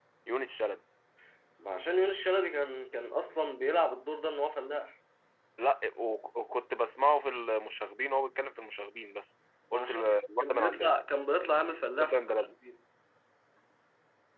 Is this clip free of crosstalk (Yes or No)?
No